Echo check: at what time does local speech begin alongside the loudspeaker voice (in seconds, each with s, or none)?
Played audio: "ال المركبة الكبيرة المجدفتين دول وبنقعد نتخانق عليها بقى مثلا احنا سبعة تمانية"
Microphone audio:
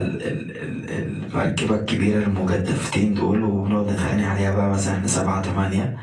none